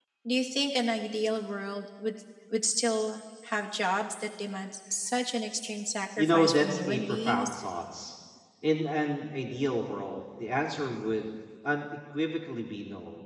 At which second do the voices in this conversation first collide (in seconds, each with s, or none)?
6.2 s